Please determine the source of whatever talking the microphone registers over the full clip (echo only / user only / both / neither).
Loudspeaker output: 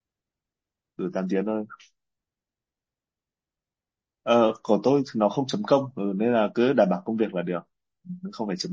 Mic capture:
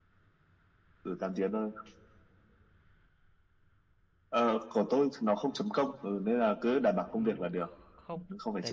both